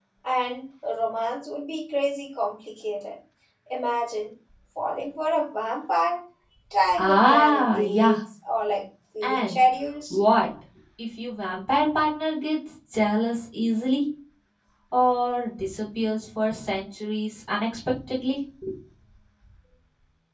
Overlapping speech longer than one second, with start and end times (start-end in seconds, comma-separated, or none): 7.0-8.2